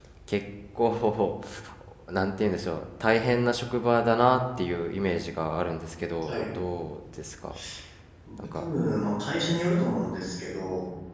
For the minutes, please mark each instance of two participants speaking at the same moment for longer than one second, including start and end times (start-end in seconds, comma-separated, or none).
none